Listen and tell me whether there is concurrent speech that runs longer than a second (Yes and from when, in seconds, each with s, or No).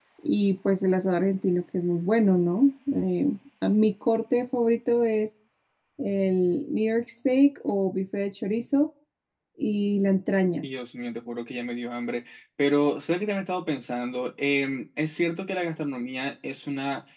No